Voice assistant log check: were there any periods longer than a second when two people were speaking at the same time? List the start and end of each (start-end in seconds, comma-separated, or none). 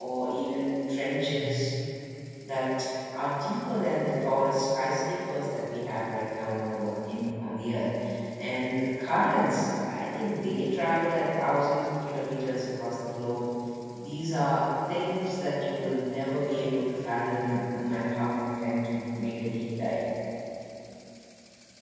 none